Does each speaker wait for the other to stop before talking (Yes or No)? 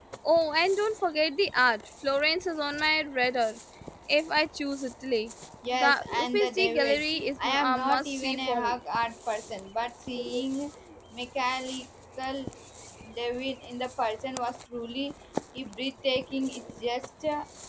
No